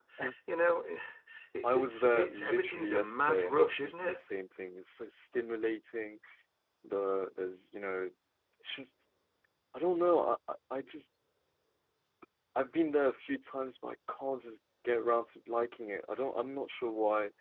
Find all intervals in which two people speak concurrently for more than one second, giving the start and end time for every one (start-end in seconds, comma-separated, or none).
1.6-4.2